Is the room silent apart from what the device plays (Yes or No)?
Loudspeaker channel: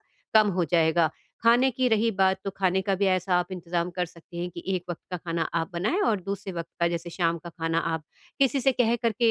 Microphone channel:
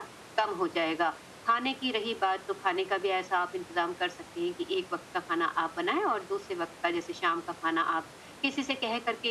Yes